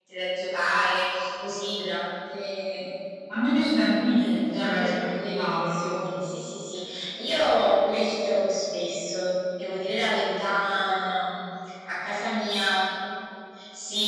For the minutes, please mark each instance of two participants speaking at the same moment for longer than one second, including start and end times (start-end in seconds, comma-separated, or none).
4.2-5.9